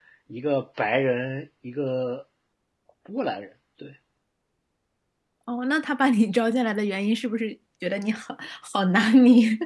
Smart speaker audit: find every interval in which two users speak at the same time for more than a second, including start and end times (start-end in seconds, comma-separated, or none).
none